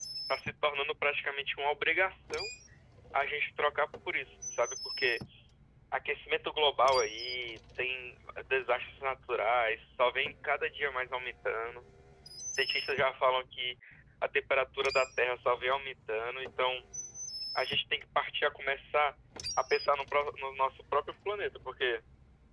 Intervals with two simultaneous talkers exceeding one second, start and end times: none

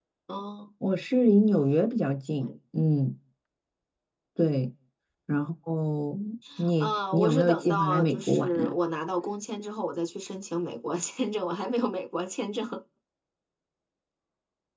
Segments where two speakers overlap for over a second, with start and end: 6.8-8.7

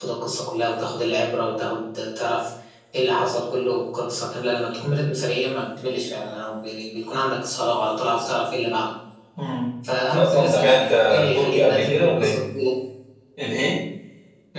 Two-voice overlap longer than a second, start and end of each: 10.2-12.4

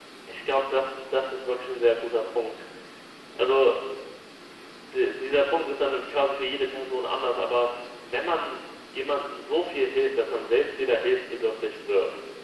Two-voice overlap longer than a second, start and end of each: none

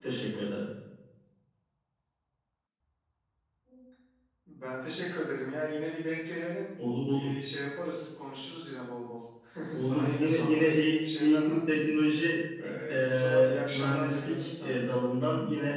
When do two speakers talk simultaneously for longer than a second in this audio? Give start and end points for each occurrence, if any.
9.8-11.6, 12.9-14.8

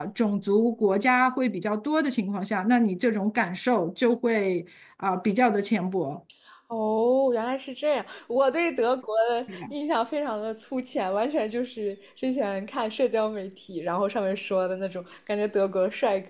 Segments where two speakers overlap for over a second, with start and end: none

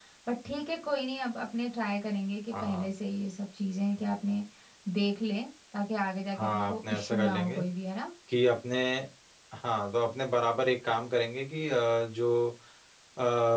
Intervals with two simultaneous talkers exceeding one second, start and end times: 6.3-7.6

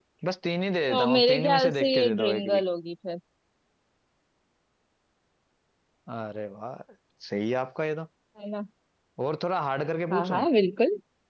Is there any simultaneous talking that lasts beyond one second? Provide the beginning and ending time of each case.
0.9-2.6

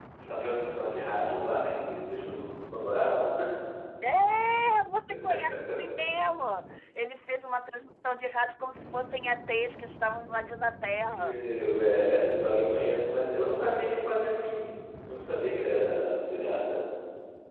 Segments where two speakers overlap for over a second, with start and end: none

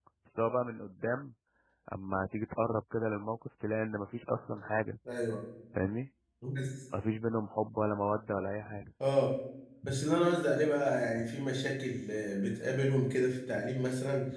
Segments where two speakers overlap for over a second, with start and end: none

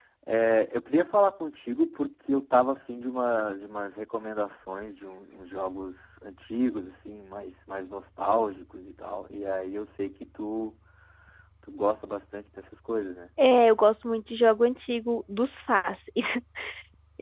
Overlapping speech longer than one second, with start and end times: none

